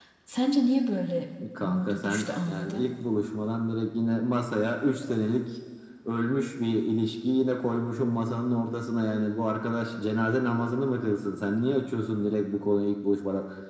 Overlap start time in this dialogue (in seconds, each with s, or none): 1.4 s